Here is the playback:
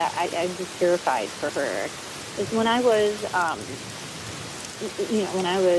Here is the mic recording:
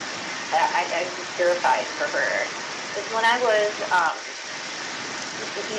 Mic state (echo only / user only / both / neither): echo only